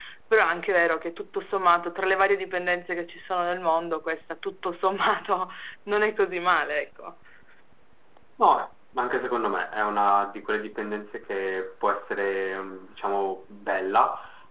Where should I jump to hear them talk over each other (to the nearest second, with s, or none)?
none